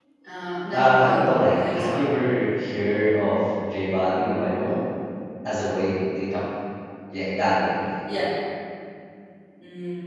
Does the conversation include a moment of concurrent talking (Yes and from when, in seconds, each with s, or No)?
Yes, from 0.7 s